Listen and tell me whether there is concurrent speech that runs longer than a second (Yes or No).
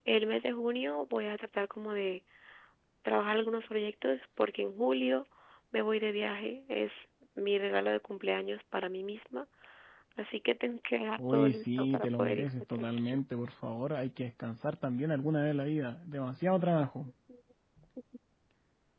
Yes